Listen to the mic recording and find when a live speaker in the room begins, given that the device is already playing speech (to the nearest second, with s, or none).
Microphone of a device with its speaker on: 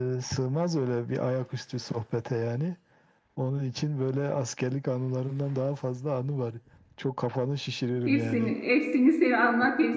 8 s